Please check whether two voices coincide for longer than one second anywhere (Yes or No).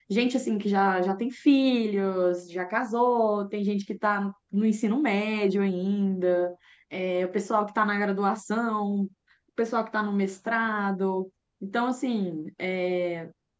No